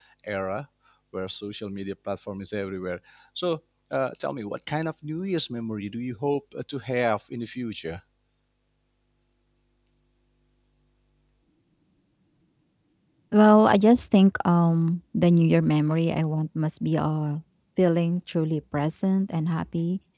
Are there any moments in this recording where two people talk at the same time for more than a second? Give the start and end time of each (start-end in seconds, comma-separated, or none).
none